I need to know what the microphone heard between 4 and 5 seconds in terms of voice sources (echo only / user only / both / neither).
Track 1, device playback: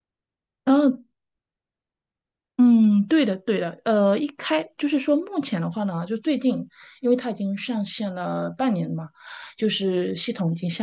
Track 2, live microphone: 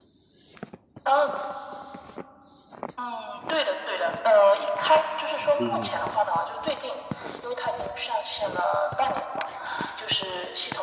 echo only